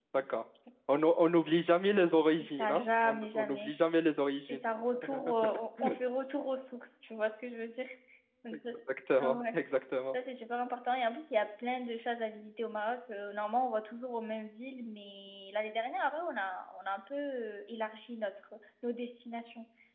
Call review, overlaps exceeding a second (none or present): present